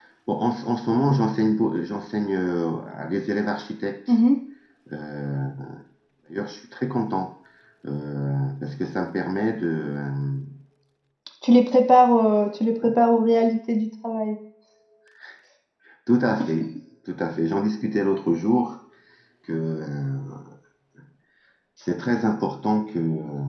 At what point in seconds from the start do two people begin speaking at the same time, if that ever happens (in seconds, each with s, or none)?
none